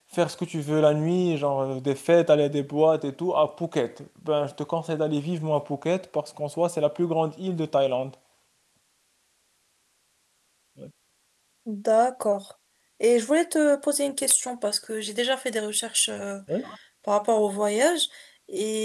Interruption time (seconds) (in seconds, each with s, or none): none